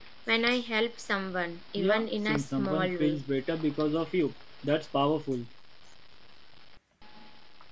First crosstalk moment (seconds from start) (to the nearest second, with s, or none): 2 s